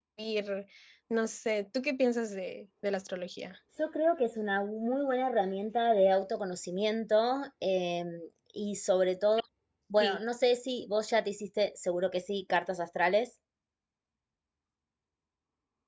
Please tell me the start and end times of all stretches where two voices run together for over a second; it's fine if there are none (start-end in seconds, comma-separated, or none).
none